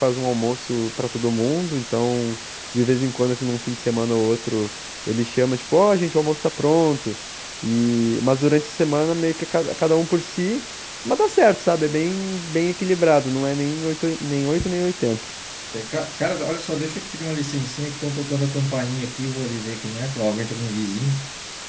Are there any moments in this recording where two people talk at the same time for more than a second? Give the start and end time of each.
none

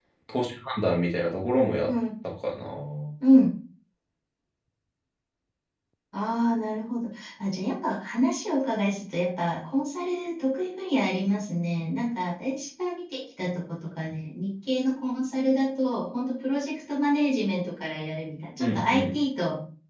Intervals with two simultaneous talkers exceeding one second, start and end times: none

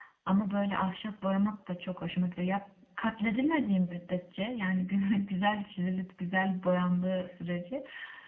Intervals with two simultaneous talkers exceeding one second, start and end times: none

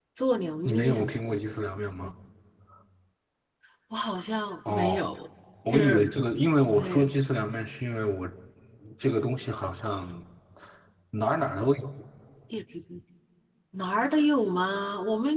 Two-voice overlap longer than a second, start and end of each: none

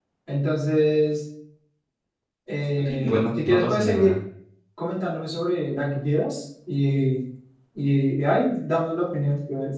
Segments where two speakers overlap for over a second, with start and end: 2.8-4.2

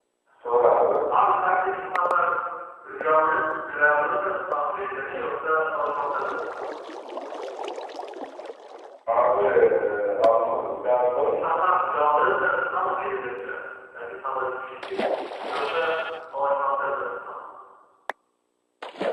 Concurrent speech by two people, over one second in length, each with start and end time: none

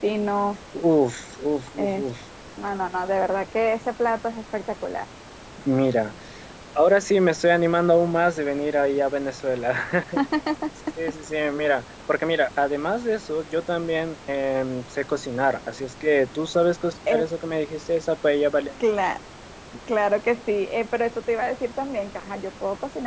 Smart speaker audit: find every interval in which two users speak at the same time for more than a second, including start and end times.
none

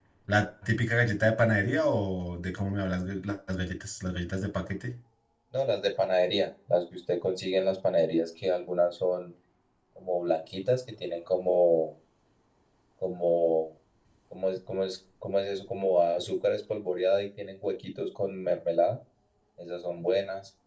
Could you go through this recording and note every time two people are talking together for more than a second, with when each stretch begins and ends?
none

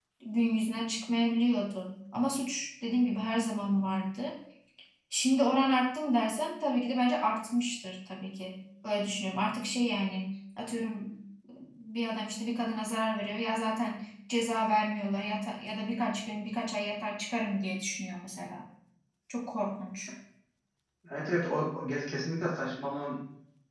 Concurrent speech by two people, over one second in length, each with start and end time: none

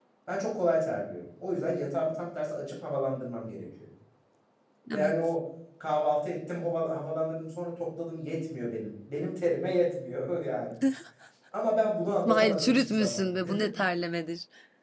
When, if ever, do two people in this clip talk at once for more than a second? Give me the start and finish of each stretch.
12.1-13.7

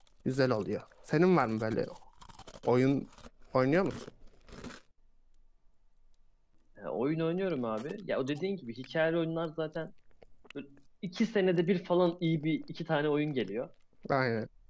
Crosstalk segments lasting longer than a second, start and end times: none

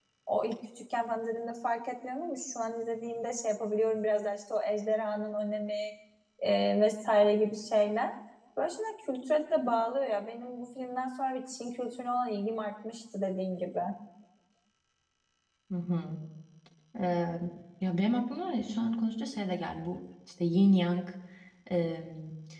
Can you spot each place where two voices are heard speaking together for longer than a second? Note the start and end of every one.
none

